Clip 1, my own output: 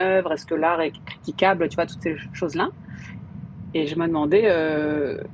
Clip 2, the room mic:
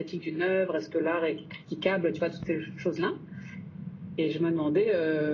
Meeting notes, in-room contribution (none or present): none